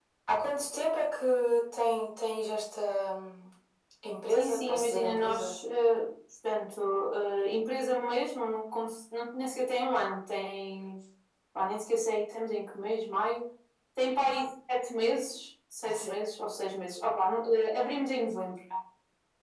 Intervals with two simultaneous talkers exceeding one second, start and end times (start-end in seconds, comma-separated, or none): 4.3-5.5